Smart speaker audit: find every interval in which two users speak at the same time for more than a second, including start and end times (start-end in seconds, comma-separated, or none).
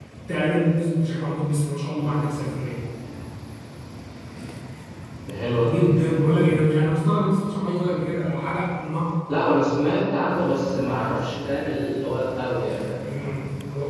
none